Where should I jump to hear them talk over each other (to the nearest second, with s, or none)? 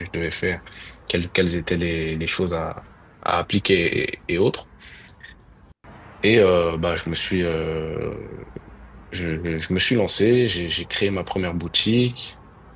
none